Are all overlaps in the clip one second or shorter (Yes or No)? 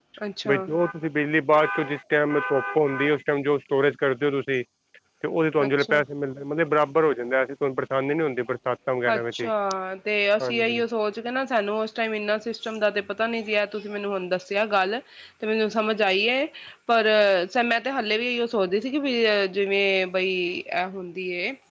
Yes